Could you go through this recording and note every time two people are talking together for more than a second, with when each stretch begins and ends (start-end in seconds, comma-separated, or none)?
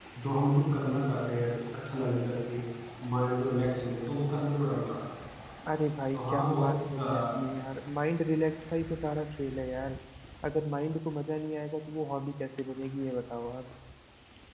6.1-7.4